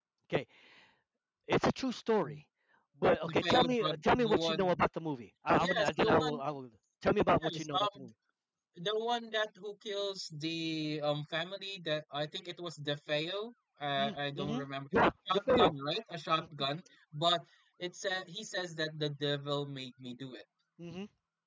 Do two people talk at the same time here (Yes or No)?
Yes